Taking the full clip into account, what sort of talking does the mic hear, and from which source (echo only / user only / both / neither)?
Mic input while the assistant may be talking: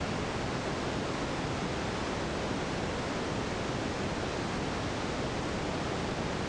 neither